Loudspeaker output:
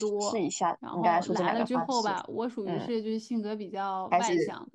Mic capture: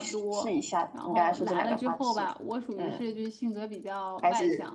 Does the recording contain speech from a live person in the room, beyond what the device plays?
No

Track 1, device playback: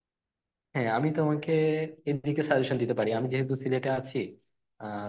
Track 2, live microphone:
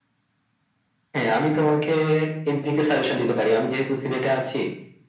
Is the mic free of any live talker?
Yes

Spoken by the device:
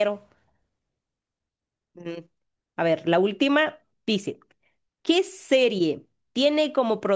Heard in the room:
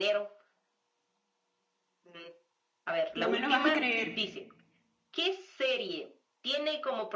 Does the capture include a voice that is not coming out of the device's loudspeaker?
Yes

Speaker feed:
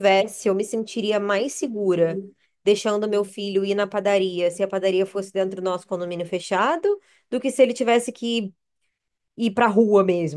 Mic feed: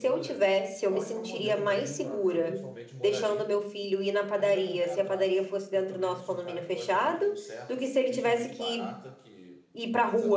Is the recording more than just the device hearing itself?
Yes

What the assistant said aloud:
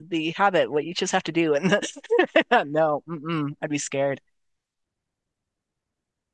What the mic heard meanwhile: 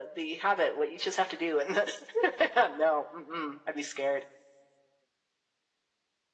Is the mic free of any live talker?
Yes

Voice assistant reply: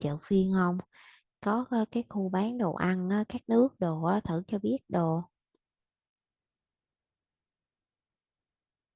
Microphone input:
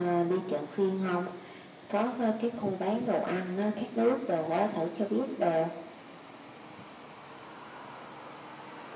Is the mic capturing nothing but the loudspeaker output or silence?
Yes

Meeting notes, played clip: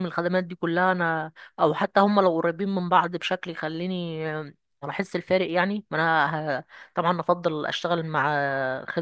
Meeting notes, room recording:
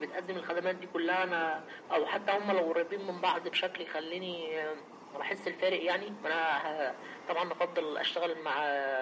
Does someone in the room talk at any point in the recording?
No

